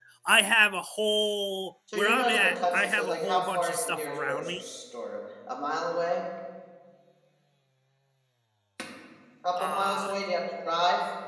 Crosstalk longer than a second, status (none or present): present